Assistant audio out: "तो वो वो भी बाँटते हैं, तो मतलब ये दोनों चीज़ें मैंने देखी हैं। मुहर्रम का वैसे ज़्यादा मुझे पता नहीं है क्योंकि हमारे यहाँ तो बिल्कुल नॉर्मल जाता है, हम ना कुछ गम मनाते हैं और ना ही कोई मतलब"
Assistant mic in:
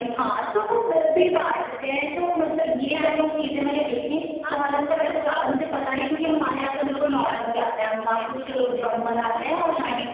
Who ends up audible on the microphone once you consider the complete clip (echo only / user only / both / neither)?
both